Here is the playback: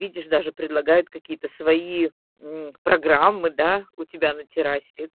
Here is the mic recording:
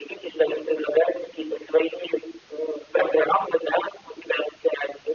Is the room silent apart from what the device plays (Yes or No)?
Yes